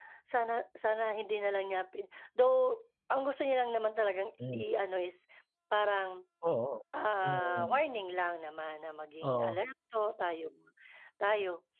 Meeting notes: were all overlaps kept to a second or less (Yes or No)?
Yes